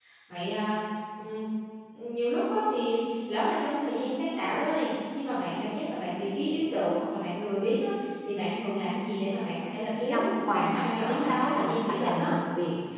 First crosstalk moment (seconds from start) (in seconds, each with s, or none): 10.1 s